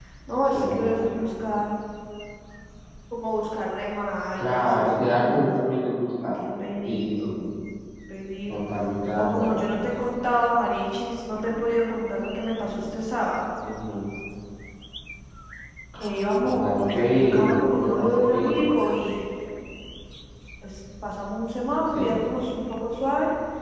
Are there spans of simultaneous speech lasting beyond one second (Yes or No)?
Yes